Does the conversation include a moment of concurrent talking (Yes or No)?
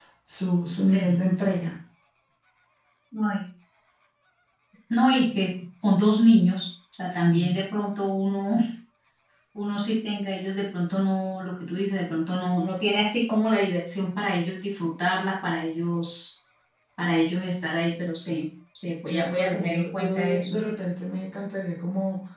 Yes